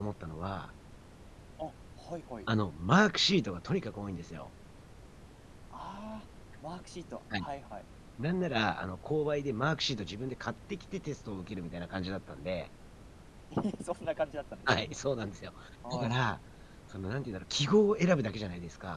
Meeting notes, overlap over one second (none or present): none